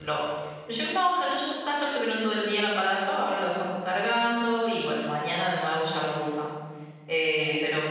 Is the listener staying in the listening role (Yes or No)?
Yes